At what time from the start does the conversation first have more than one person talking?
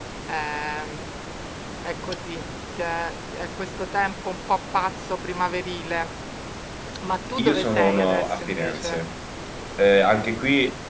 7 s

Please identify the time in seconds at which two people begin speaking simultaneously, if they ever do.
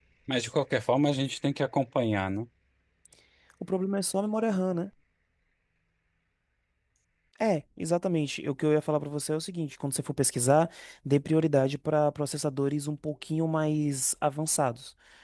none

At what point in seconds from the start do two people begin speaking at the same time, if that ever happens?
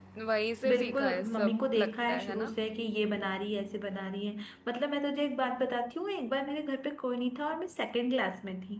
1 s

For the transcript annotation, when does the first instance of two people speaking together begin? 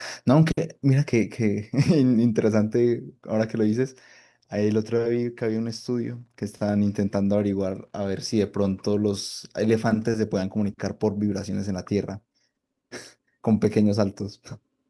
none

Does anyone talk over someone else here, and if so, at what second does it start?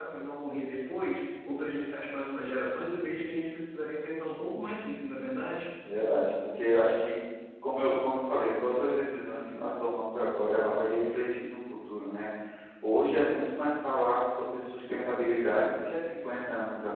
none

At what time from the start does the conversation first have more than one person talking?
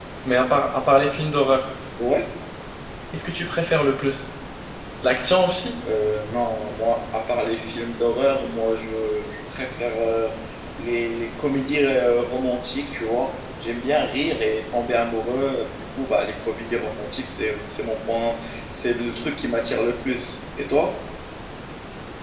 none

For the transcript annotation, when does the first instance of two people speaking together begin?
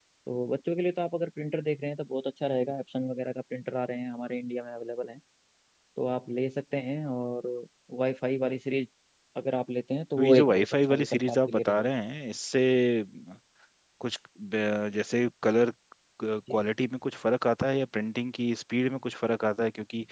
10 s

